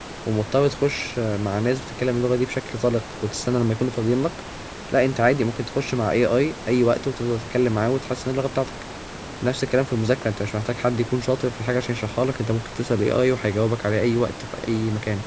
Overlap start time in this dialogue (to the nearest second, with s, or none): none